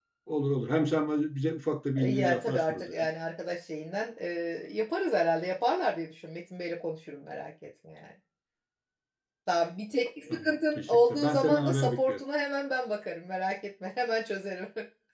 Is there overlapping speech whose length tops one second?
Yes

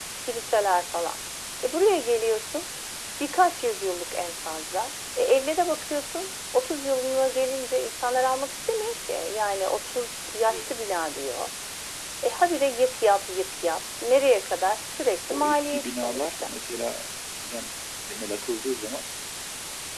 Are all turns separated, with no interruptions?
No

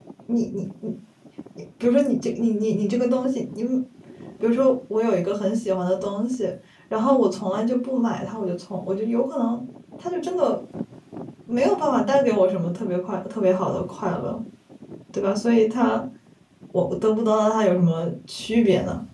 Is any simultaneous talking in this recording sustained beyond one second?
No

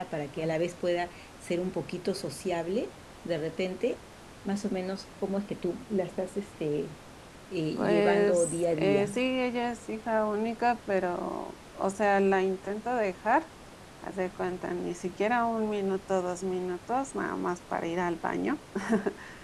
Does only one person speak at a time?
No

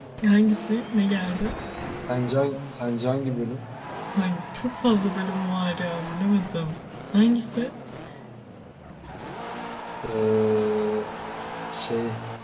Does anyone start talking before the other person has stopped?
No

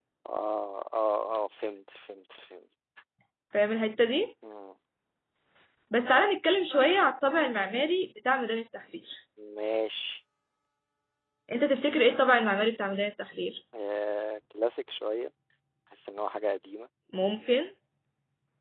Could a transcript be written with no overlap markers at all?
Yes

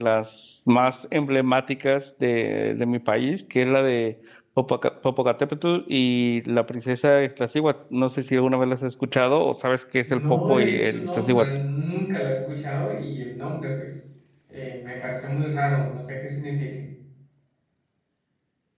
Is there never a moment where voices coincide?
No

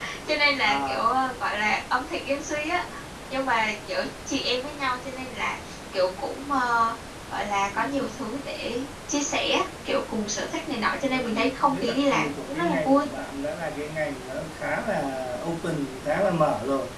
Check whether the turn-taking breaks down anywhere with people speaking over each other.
Yes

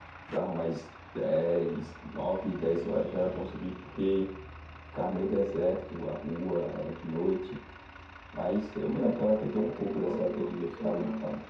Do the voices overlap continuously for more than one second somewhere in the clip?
Yes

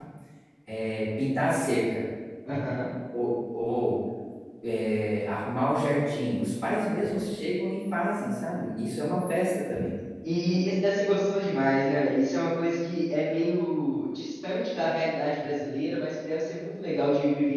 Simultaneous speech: No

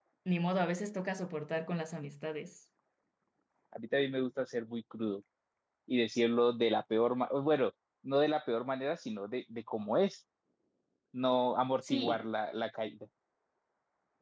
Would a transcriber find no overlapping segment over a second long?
Yes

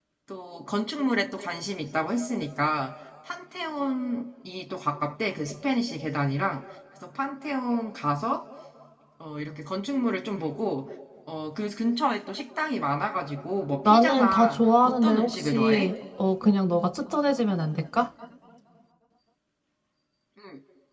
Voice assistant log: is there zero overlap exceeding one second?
No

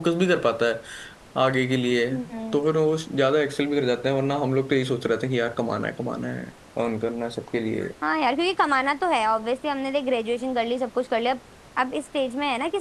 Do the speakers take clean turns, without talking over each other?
Yes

